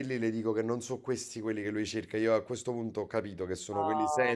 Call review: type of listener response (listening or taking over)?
taking over